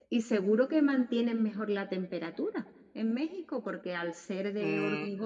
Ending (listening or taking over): taking over